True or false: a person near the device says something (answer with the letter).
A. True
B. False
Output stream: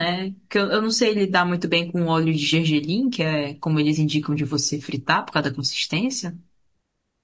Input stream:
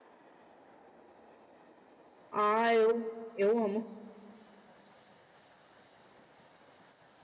A